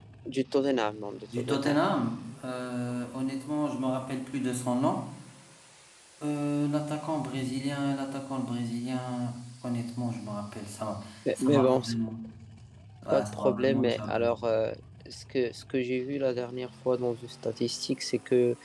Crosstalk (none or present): present